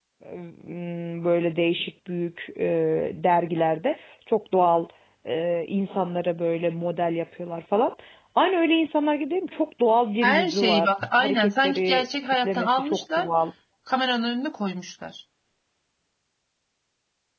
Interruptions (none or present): present